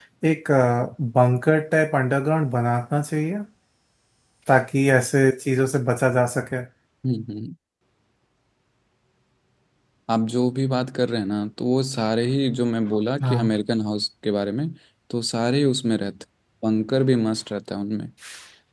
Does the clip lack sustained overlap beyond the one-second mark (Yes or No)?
Yes